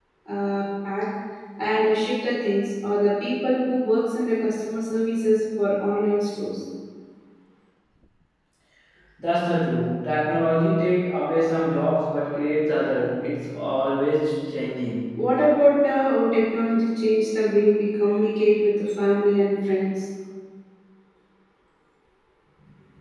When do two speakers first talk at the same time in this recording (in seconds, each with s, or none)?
none